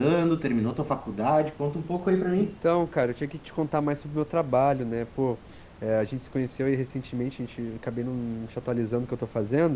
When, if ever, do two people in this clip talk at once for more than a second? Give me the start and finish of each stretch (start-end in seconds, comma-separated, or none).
none